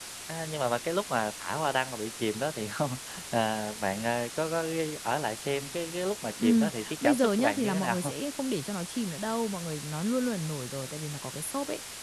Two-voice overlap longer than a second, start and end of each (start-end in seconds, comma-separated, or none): 6.4-8.1